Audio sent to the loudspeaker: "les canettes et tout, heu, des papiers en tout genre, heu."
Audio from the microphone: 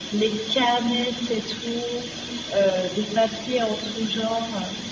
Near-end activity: none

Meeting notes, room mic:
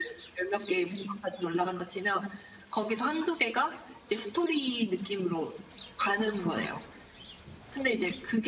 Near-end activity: none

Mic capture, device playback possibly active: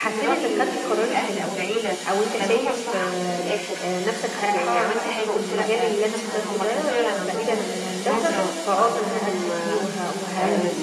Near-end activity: present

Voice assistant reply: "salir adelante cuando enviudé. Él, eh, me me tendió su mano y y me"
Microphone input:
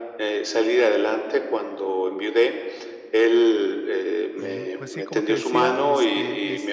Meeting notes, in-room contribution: present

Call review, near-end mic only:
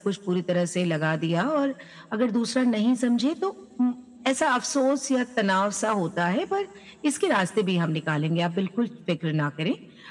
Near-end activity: none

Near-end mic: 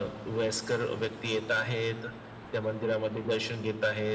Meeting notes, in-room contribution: none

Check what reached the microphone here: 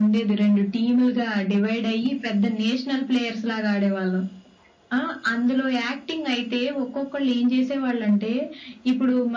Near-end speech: none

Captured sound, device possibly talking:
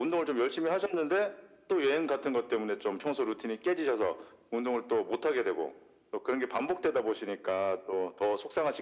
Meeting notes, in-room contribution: none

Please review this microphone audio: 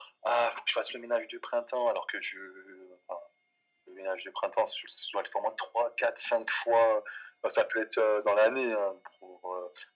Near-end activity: none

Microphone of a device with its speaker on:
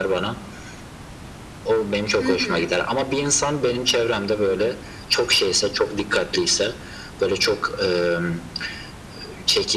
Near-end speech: present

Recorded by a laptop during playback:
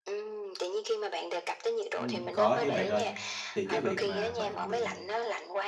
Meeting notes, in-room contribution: present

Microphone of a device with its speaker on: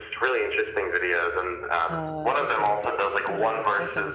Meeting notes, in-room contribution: present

